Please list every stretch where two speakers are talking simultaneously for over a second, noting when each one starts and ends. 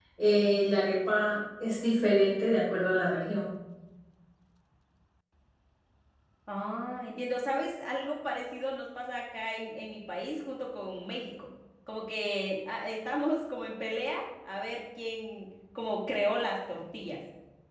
none

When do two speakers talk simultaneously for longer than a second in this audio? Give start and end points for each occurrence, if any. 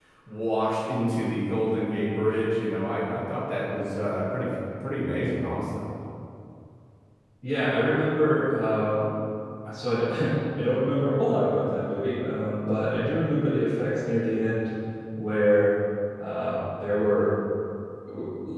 none

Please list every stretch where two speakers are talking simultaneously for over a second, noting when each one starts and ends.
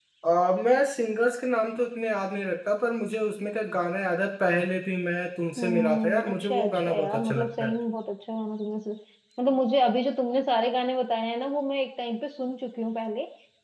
5.6-7.7

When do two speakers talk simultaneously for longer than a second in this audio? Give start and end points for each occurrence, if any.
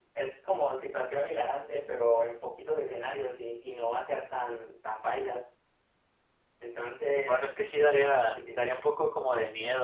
none

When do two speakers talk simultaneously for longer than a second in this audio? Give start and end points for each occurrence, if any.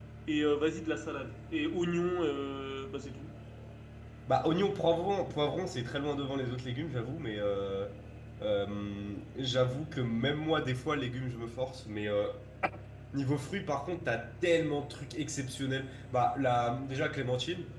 none

